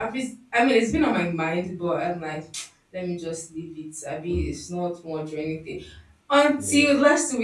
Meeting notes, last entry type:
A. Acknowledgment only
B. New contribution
A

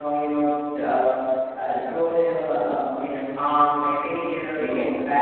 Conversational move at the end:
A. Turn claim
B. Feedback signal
B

